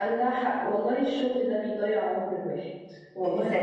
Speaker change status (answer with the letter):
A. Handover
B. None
A